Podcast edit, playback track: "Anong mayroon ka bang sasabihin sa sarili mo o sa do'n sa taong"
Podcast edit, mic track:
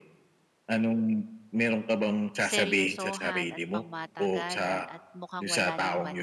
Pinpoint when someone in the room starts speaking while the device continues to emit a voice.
2 s

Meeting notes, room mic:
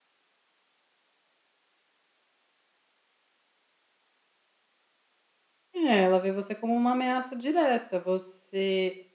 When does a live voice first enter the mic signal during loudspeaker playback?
6 s

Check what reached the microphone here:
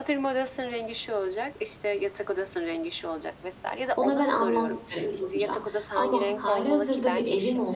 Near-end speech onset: 4 s

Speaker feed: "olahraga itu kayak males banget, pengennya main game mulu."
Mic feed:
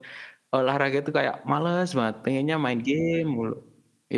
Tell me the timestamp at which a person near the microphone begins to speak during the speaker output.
none

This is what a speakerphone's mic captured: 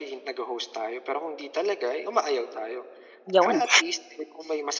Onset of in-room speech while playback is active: 3 s

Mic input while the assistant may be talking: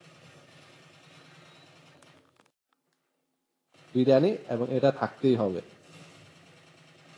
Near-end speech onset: 4 s

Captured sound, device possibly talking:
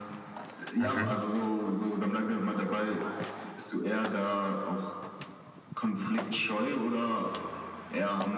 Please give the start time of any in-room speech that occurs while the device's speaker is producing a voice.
1 s

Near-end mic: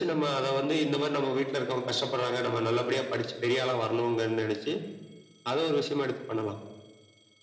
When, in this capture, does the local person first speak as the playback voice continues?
none

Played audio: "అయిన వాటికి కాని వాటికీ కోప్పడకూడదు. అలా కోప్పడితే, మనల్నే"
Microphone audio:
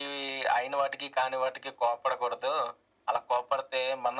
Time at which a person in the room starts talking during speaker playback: none

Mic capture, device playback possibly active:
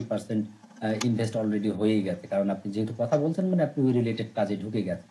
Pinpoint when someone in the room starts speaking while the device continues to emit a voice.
none

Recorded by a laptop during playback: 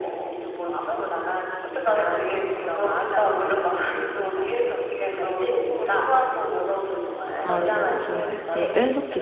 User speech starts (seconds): 7 s

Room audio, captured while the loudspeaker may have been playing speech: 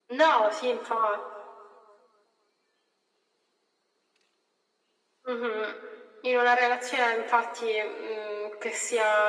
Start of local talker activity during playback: none

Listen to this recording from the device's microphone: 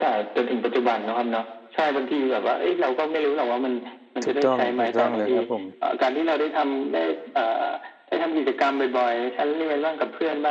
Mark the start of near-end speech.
4 s

